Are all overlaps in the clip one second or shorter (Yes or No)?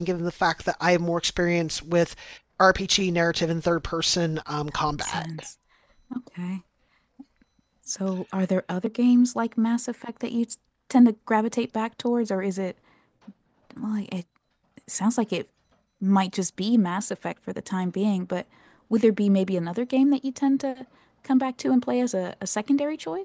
Yes